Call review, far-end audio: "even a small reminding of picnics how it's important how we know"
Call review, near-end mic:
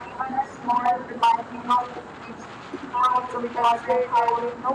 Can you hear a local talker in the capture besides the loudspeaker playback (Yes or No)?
Yes